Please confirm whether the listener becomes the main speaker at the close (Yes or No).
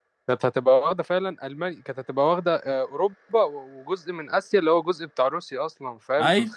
No